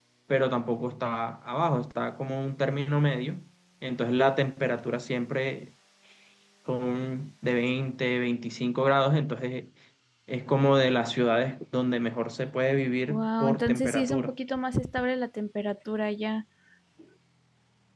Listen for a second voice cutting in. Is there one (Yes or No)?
Yes